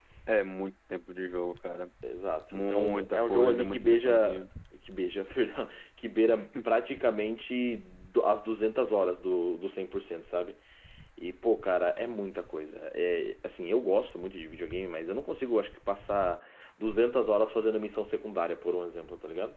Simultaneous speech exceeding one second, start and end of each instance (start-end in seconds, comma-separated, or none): 2.5-4.4